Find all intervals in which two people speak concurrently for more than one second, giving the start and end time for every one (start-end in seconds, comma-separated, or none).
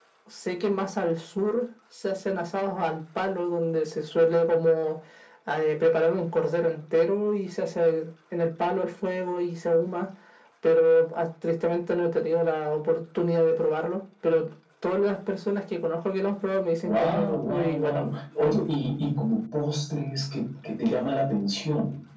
16.9-18.1